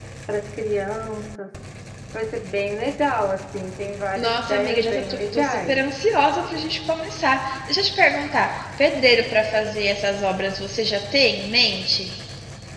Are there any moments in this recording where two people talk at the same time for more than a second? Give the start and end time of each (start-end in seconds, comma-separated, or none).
4.2-5.8